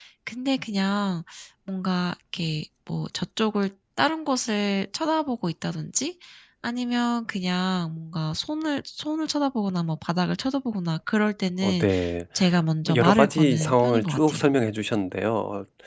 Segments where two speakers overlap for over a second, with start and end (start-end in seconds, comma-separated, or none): 12.9-14.4